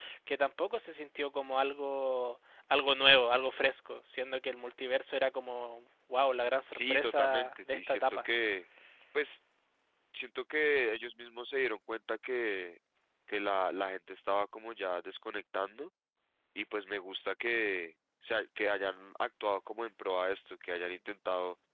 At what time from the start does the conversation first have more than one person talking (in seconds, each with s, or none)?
6.7 s